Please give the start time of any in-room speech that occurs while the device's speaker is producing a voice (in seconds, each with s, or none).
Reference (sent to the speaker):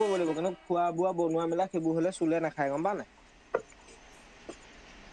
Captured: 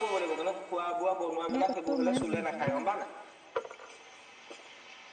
1.5 s